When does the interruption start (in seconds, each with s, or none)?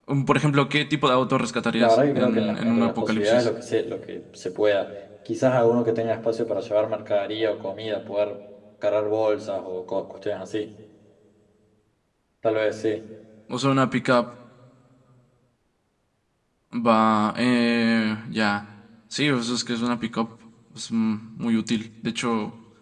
1.8 s